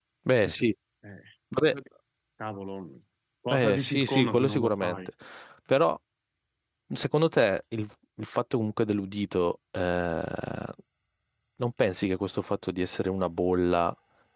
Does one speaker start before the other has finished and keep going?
Yes, from 3.5 s

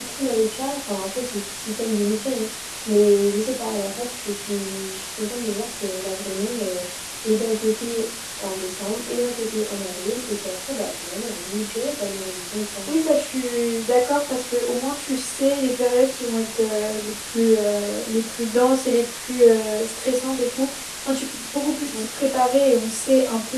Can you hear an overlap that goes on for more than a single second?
No

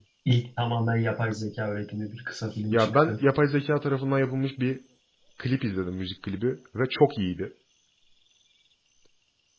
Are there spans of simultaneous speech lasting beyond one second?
No

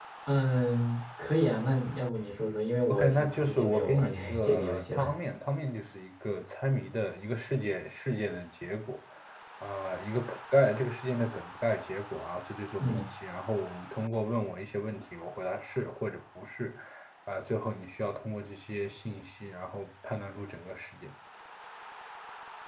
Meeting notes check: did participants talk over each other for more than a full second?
Yes, from 2.9 s

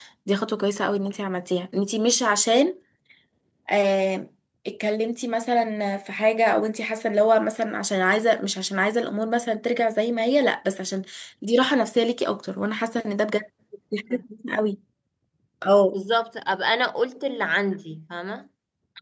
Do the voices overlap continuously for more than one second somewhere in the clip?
No

